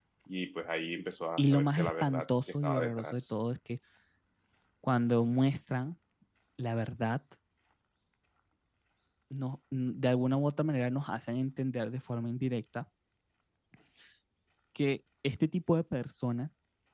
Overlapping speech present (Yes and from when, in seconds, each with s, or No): Yes, from 1.4 s